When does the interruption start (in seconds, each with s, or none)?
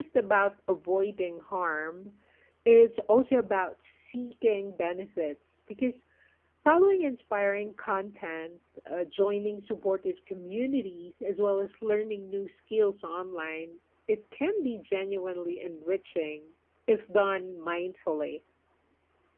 none